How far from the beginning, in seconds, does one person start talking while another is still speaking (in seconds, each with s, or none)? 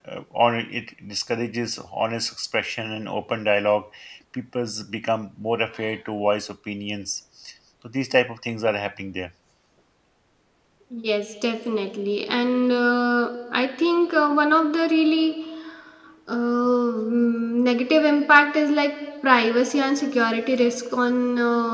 none